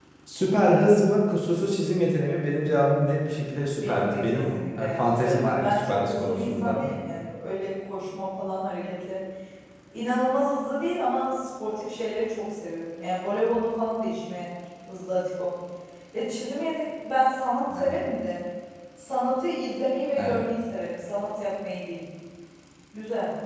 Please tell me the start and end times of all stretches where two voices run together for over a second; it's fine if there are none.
3.8-6.9

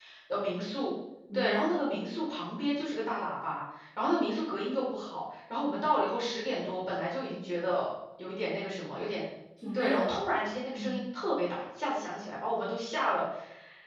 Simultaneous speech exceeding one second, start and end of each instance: none

